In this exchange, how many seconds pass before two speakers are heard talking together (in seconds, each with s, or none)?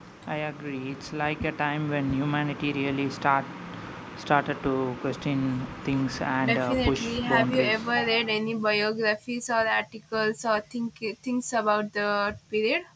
6.3 s